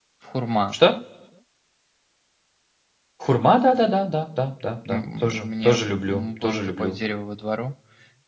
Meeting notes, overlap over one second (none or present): present